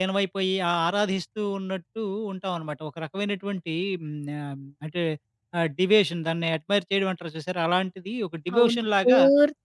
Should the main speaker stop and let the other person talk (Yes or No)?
Yes